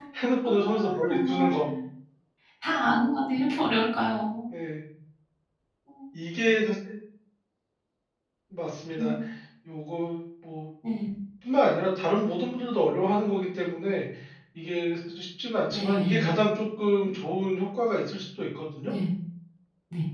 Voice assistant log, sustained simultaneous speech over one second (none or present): present